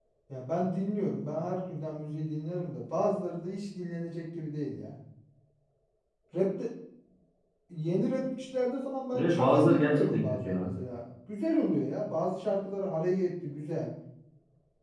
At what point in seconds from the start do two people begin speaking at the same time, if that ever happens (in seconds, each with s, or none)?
9.1 s